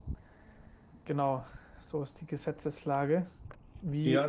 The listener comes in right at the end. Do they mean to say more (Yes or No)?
Yes